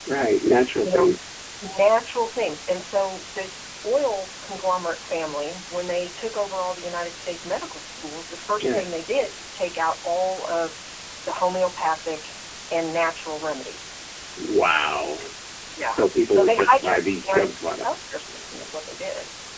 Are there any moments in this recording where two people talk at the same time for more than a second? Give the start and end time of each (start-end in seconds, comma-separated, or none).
15.8-18.0